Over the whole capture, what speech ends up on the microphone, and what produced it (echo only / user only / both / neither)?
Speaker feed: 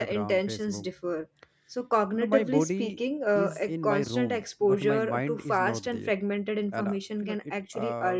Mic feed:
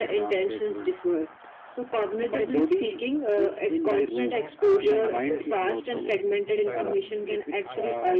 both